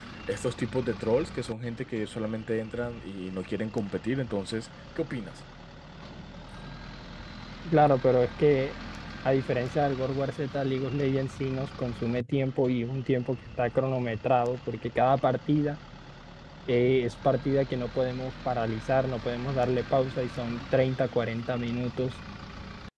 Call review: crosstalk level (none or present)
none